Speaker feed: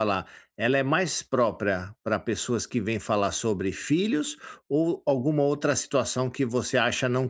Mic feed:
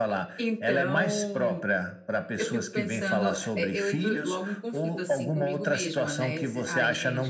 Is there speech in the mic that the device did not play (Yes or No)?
Yes